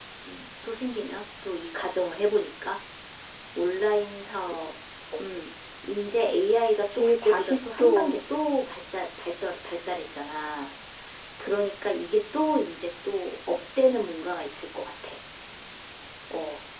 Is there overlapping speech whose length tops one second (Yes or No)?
Yes